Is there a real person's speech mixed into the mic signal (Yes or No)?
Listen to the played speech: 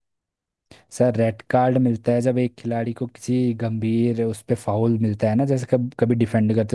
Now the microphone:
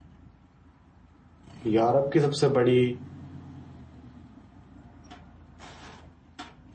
Yes